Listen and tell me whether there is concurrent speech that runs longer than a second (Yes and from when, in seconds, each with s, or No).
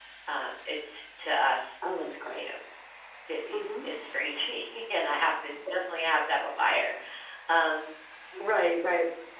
No